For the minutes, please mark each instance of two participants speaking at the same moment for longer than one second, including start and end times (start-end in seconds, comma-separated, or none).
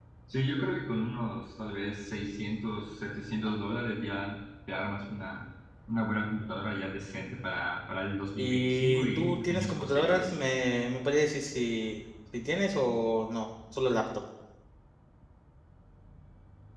8.4-10.3